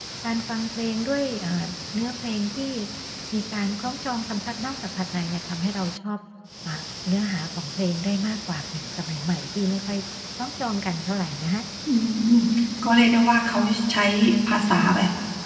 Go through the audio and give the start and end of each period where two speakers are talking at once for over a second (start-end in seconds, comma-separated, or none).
none